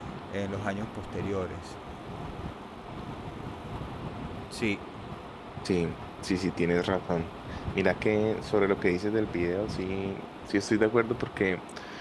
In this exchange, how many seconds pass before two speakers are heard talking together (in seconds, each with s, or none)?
none